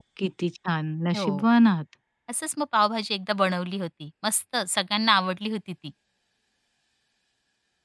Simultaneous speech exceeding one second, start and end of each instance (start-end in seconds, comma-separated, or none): none